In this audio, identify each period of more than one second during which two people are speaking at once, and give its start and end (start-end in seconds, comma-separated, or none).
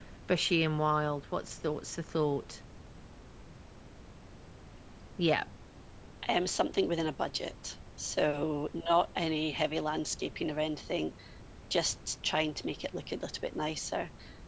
none